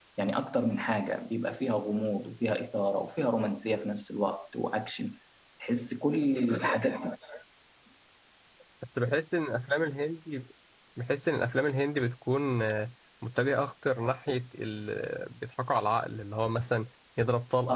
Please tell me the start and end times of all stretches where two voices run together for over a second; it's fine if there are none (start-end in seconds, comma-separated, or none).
none